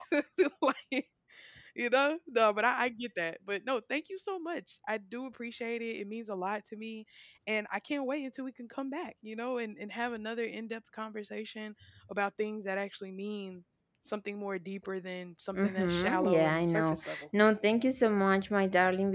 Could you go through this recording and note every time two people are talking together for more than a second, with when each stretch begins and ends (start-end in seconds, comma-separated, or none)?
15.5-17.2